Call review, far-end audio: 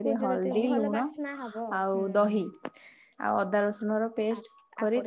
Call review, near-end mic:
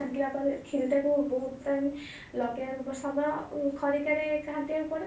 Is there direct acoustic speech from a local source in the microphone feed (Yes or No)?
Yes